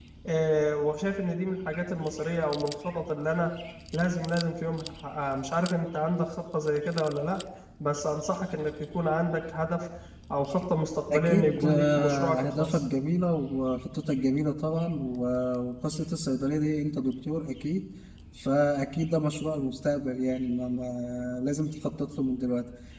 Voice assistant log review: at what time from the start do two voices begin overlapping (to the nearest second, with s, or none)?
11 s